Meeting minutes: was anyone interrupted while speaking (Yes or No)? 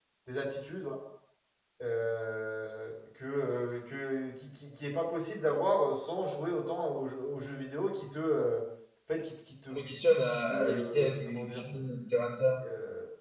Yes